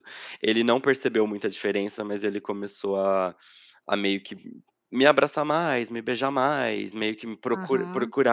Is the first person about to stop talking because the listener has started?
Yes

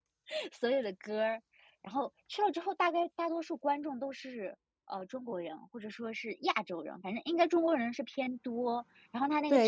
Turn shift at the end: Yes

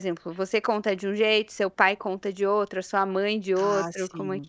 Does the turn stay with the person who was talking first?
No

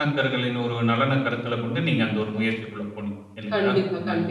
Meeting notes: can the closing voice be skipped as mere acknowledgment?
No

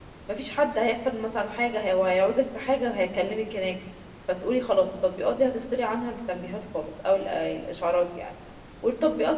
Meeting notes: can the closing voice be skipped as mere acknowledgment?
Yes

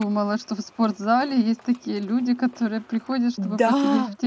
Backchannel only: No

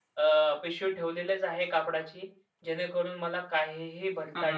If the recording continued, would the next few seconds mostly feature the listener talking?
Yes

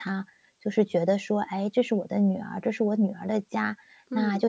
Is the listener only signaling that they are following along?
Yes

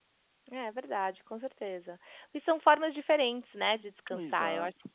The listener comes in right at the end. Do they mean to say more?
No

